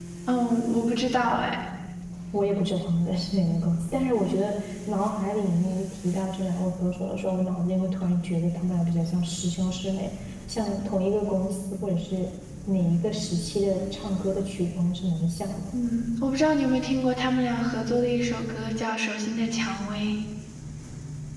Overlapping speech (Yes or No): No